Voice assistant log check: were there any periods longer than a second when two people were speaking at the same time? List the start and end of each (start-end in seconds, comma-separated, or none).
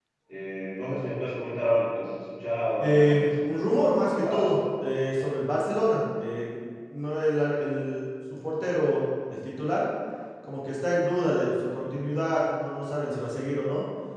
2.8-4.6